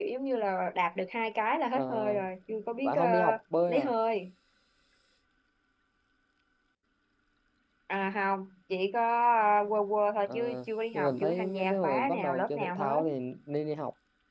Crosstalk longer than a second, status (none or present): present